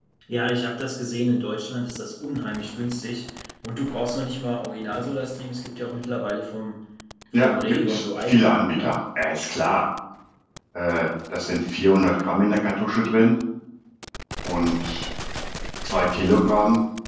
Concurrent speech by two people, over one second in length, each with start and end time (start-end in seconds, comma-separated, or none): 7.3-8.9